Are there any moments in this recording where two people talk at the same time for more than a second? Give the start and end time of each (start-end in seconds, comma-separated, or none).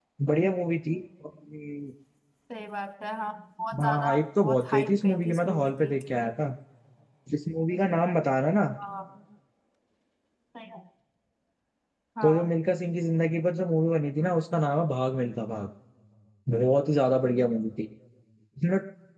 3.8-5.9